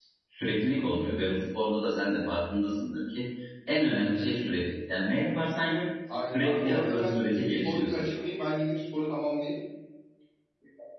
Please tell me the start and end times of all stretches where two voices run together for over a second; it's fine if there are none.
6.3-8.0

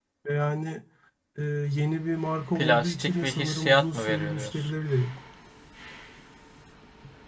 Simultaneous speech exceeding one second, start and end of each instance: 2.5-4.7

